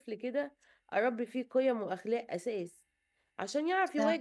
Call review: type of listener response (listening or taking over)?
listening